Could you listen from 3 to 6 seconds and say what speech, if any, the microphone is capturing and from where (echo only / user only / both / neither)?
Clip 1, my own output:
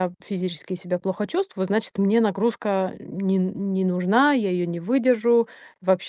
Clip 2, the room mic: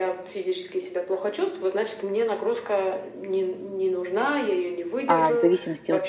both